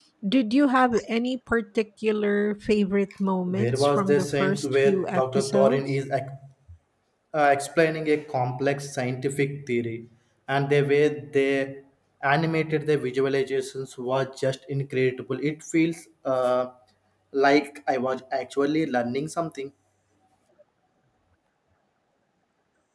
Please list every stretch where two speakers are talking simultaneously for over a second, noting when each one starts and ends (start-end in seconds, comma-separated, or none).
3.5-5.8